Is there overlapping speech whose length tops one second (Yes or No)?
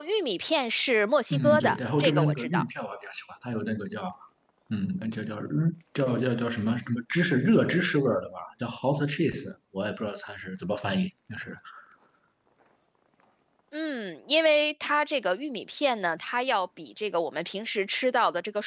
Yes